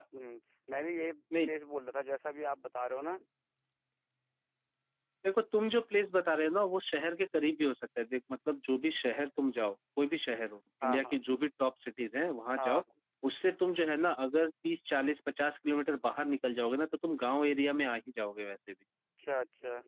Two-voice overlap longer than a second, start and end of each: none

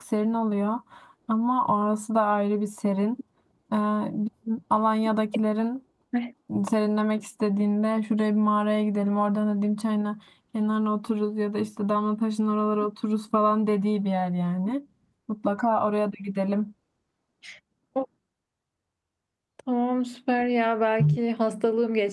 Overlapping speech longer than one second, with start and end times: none

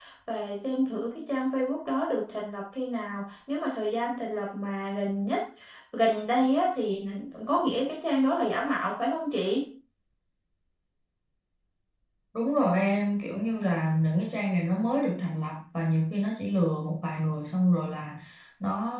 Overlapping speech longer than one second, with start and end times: none

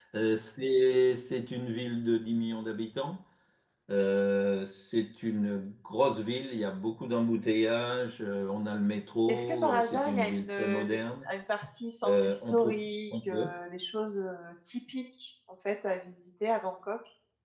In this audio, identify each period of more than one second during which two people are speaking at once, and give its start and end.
9.3-11.3, 12.0-13.5

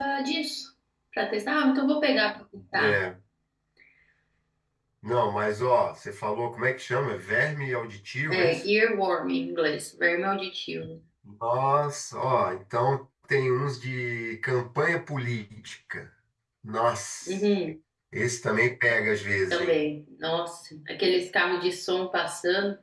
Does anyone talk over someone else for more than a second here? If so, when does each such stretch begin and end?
none

